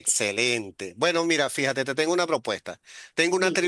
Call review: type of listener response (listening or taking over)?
listening